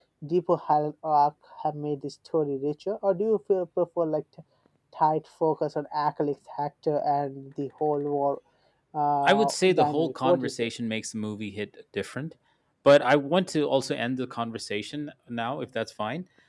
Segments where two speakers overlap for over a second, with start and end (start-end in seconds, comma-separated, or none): 9.2-10.5